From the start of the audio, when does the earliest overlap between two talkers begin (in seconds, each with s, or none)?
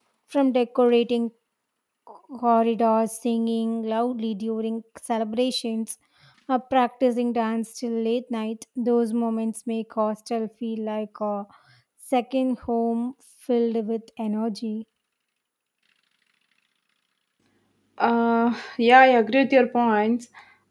none